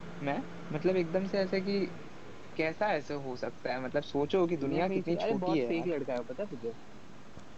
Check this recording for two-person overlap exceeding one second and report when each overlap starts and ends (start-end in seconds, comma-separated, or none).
4.6-5.9